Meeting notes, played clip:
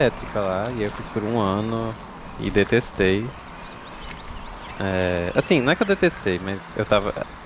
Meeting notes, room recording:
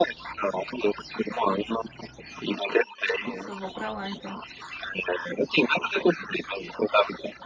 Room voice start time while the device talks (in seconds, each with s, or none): 3.2 s